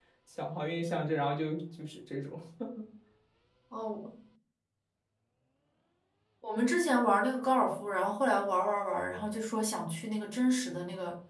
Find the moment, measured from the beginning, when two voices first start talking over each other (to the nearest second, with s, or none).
none